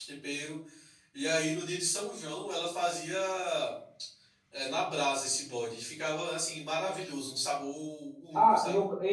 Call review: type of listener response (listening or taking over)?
taking over